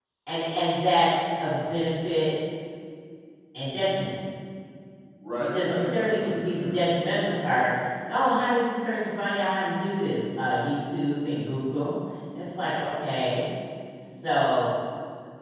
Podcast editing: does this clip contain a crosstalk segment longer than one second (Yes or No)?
Yes